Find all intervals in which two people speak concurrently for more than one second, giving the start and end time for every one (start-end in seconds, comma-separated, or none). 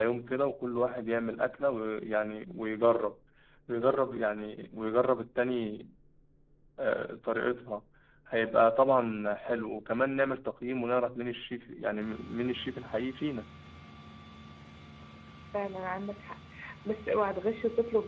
none